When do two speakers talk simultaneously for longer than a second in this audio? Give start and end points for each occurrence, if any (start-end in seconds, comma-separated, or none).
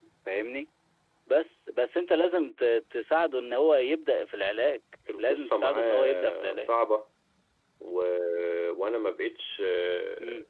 5.2-6.7